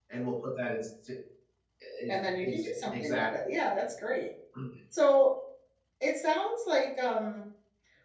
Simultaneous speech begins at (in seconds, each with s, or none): 2.1 s